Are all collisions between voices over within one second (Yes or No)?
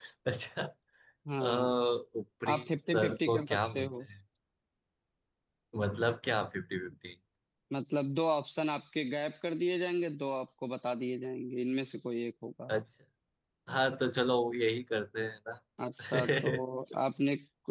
No